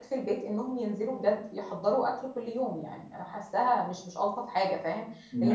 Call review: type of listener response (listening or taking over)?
listening